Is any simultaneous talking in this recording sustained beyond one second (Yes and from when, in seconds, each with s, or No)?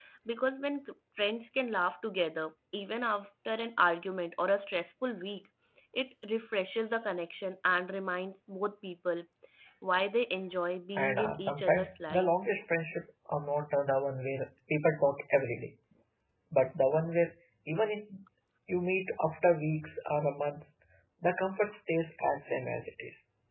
Yes, from 11.0 s